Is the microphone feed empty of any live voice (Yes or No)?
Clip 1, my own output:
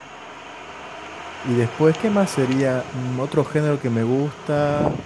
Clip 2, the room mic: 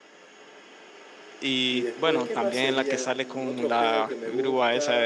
No